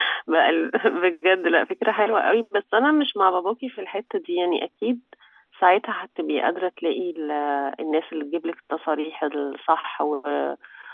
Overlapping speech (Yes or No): No